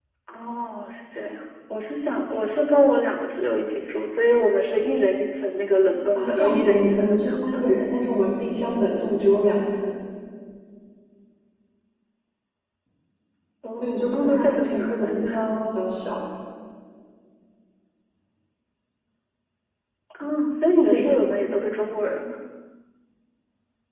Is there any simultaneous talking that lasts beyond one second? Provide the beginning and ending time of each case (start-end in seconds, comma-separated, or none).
6.2-7.6, 13.8-15.3